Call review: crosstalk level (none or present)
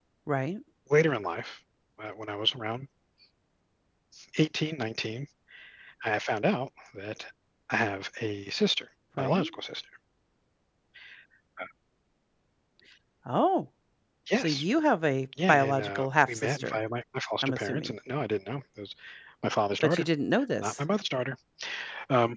present